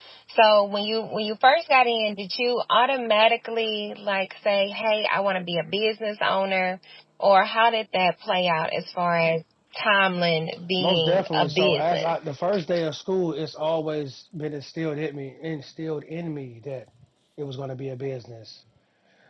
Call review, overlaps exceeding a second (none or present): present